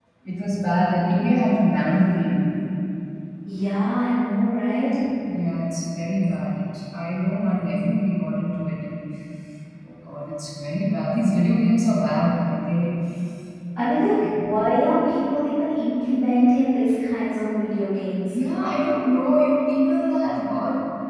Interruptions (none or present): none